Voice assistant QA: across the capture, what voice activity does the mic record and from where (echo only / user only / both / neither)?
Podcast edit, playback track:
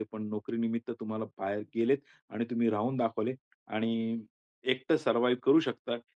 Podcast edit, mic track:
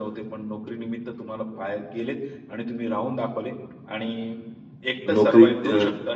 both